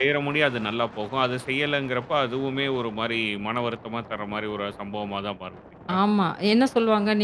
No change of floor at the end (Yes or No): No